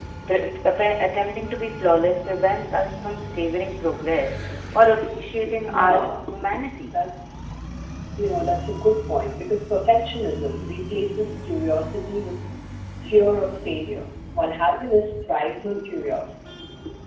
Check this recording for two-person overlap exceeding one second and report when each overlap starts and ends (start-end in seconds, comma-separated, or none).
none